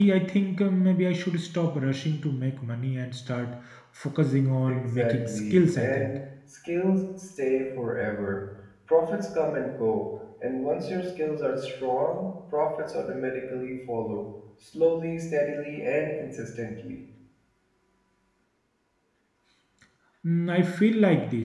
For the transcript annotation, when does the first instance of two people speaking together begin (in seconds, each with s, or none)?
4.7 s